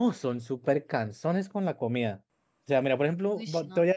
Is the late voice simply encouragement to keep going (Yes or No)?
Yes